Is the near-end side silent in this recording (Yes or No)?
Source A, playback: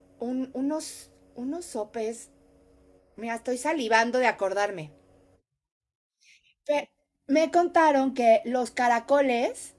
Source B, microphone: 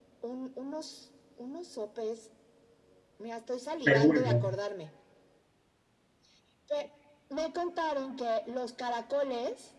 No